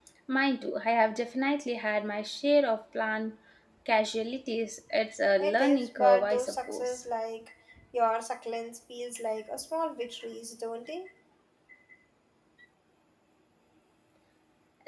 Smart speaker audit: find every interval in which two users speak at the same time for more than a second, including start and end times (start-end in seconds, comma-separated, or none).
5.4-7.0